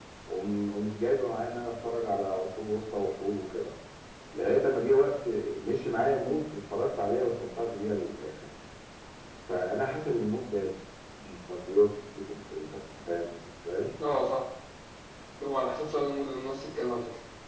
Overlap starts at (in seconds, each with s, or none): none